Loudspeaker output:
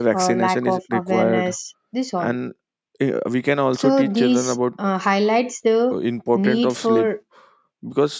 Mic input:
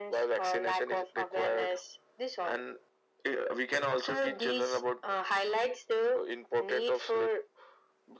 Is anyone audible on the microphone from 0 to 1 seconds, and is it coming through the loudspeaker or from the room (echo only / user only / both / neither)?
echo only